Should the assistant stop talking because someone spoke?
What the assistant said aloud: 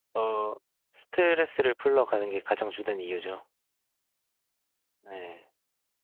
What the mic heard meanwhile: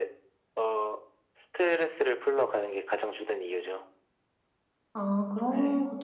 Yes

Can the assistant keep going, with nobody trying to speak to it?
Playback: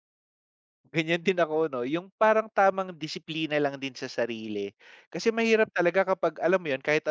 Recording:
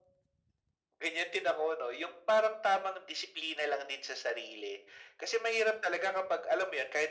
Yes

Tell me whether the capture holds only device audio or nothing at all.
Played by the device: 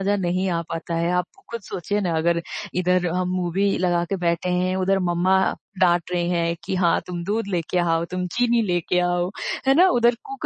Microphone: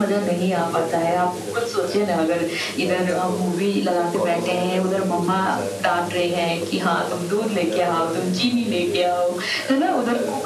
No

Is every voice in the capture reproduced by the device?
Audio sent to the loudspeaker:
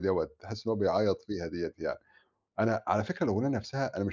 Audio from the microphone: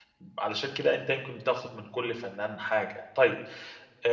No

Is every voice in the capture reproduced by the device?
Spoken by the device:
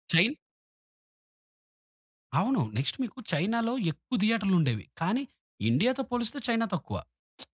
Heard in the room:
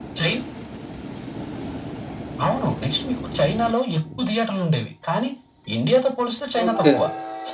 No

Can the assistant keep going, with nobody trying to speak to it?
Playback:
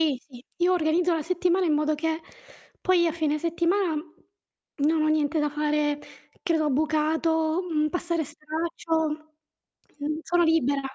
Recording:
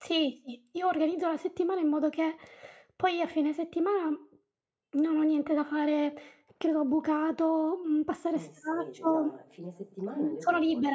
No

